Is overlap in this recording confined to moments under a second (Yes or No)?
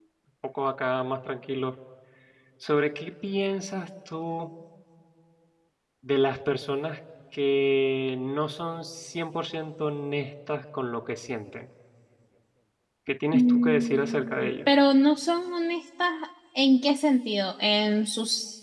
No